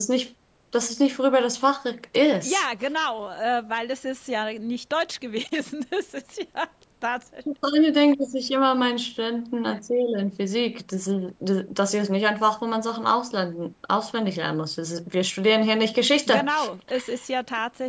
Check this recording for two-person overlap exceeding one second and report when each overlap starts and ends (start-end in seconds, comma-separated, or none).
none